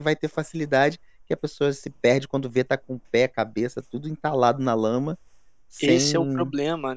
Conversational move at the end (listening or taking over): taking over